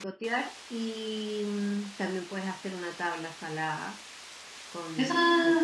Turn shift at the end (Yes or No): Yes